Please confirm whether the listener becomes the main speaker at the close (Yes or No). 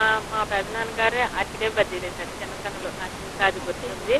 Yes